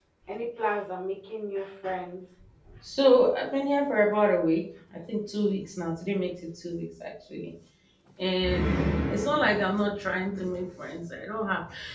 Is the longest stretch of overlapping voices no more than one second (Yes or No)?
Yes